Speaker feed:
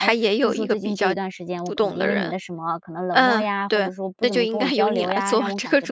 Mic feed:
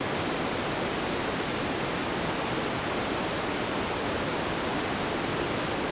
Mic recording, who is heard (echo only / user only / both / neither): neither